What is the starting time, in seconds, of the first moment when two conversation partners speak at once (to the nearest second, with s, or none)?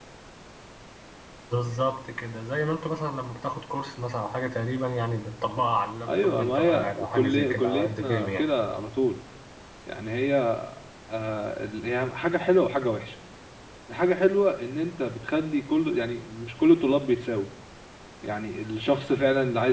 6 s